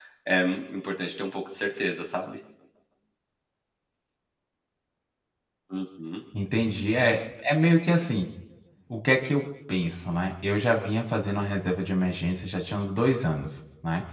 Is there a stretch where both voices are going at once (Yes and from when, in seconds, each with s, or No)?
No